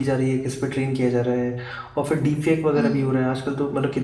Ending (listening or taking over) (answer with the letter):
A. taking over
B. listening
B